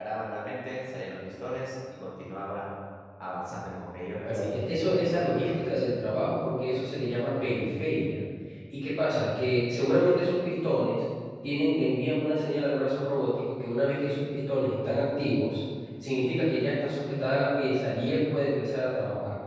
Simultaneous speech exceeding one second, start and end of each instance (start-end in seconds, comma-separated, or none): 4.2-5.9